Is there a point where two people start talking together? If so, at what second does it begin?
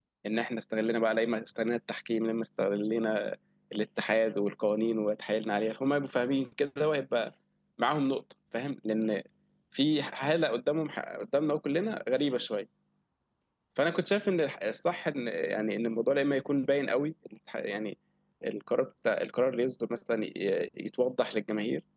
none

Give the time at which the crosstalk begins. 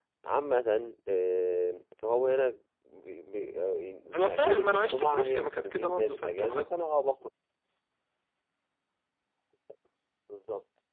4.3 s

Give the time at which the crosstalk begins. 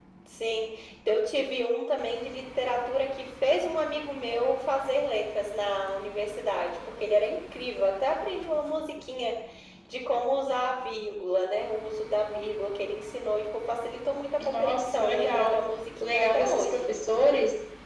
14.4 s

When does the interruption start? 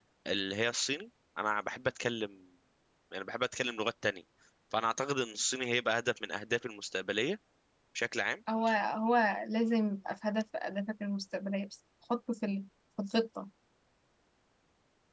none

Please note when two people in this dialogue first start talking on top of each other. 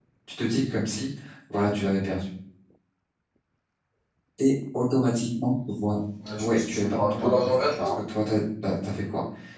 6.4 s

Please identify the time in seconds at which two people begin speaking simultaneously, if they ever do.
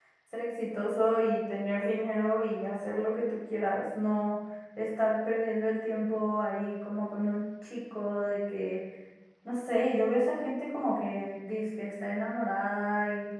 none

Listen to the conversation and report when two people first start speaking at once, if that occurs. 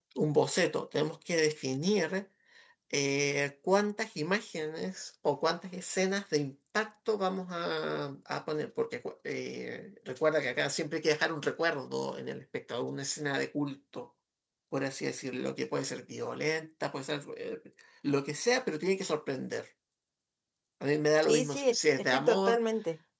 21.2 s

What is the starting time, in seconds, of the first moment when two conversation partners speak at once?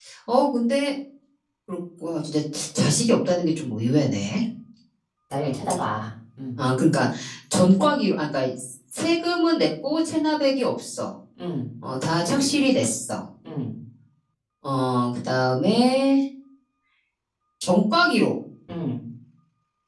none

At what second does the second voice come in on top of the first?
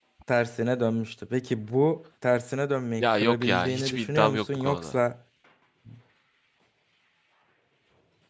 3.0 s

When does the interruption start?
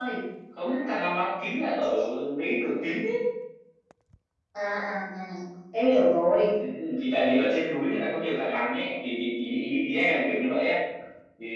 none

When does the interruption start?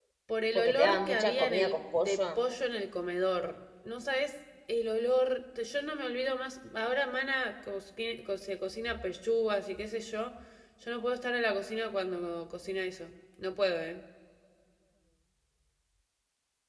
0.6 s

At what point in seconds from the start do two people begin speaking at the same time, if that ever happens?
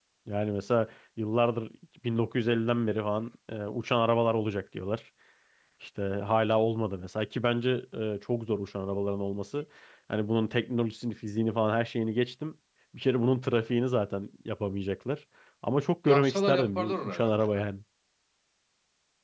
16.1 s

